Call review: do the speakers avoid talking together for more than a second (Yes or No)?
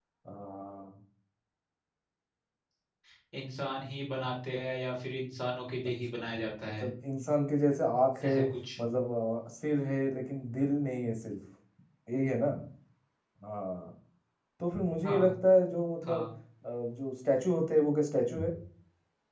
Yes